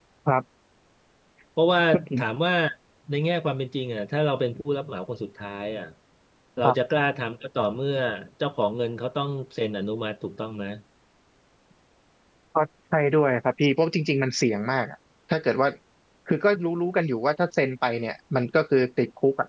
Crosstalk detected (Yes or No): No